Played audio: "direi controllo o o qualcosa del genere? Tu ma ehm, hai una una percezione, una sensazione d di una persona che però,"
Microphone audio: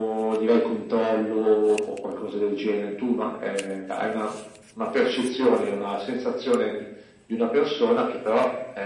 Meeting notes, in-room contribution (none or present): none